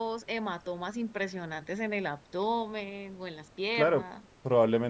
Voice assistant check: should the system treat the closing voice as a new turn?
Yes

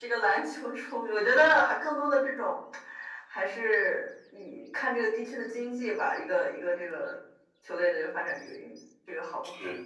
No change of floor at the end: No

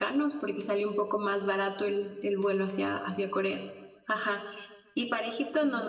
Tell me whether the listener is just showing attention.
Yes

